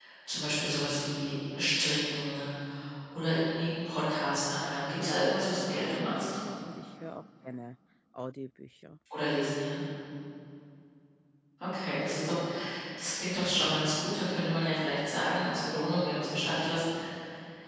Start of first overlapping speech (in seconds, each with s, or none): 5.0 s